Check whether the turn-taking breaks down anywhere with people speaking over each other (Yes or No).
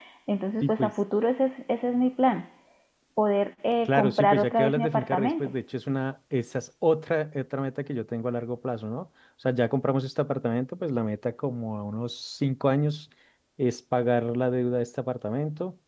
Yes